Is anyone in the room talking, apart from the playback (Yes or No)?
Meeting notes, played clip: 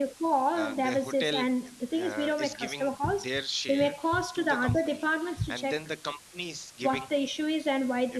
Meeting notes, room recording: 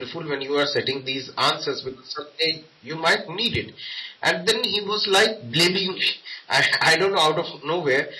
Yes